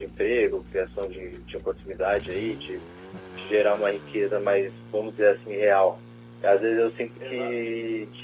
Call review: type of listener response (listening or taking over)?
listening